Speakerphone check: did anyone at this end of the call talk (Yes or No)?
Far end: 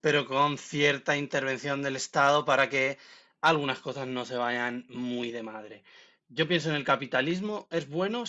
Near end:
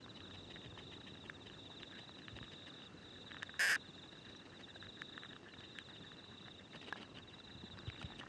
No